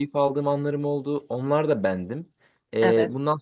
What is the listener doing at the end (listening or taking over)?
listening